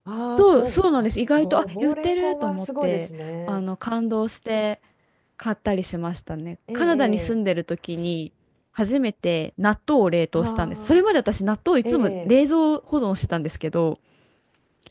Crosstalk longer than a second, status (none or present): present